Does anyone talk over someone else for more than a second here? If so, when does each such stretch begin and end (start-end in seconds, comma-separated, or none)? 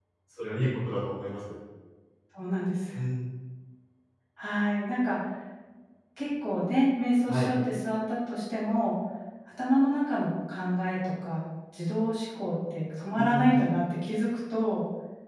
none